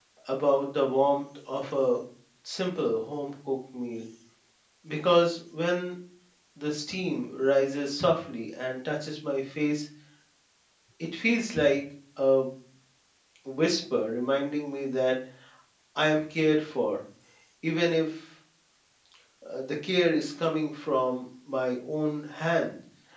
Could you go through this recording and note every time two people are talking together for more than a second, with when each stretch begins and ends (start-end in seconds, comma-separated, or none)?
none